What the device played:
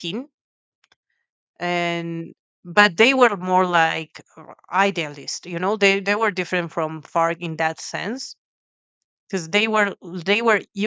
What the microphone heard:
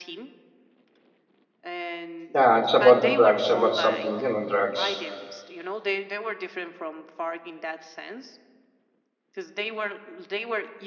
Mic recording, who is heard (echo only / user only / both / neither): both